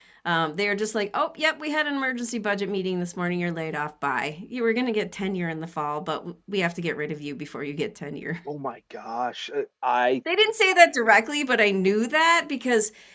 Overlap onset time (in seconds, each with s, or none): none